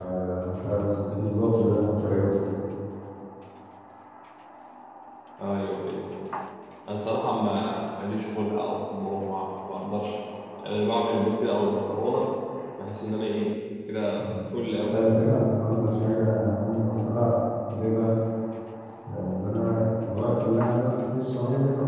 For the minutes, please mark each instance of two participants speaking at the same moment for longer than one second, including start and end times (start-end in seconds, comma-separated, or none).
none